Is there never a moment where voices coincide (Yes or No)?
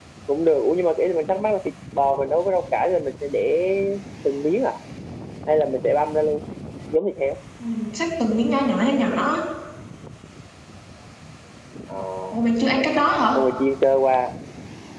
Yes